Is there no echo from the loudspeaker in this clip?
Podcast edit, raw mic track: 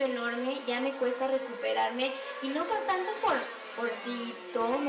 No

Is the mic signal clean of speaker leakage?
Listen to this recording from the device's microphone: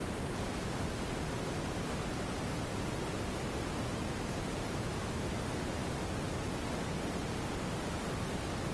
Yes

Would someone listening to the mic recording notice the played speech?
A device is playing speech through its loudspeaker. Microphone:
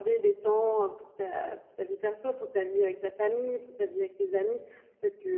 Yes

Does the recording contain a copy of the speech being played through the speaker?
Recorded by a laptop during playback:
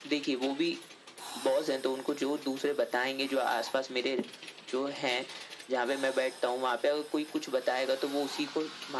Yes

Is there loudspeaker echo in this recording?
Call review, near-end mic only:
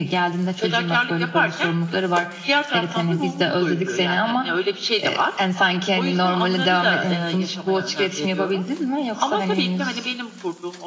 Yes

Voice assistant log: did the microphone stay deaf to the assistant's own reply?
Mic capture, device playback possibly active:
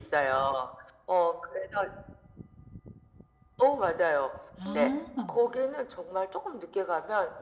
No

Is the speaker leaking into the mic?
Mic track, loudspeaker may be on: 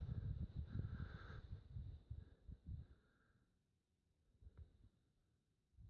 No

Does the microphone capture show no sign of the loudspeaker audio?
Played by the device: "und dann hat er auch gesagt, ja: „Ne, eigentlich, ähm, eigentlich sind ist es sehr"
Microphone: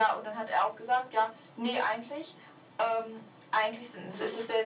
No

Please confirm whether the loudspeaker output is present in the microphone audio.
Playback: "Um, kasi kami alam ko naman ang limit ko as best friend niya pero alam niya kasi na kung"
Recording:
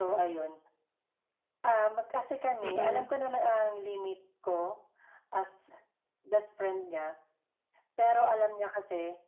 Yes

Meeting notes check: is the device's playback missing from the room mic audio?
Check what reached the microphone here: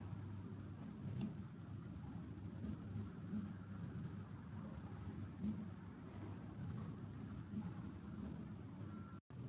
Yes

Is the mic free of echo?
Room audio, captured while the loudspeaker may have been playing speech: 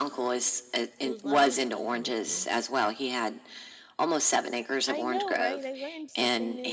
No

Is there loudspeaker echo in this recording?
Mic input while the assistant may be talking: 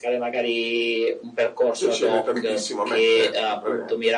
Yes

